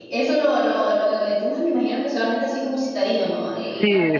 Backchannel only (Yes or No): No